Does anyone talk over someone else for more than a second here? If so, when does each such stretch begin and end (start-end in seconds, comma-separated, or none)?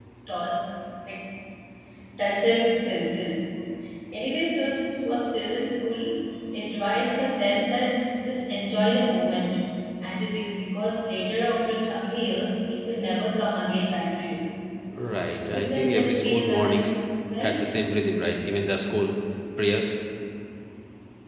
15.5-16.9